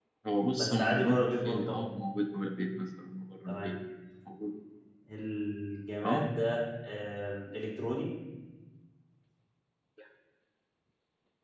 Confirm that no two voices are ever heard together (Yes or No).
No